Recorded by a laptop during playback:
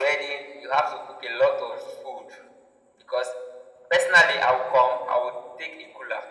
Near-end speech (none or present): none